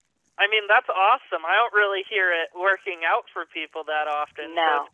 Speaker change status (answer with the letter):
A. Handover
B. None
B